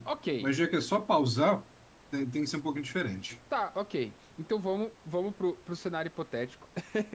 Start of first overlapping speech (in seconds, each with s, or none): none